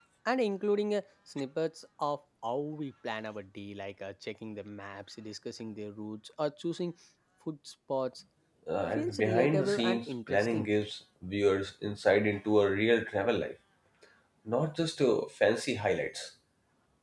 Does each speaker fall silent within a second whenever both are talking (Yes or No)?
No